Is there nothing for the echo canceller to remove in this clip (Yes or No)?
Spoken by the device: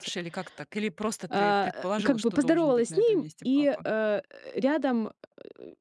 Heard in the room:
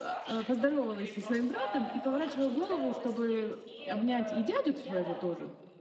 No